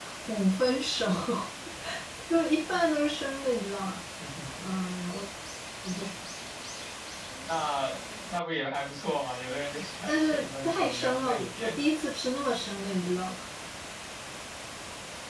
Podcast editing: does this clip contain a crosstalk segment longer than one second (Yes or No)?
Yes